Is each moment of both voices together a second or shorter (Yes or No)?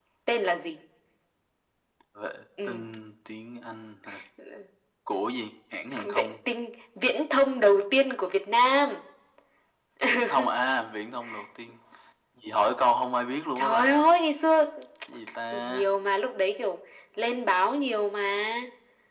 Yes